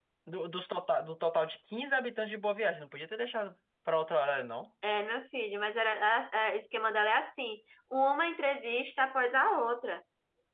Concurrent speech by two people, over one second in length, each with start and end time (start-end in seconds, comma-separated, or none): none